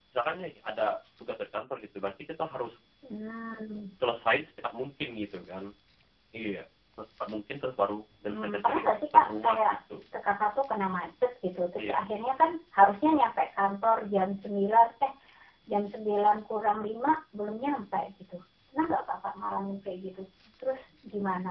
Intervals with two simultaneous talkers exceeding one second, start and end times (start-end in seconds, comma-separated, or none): 8.2-9.7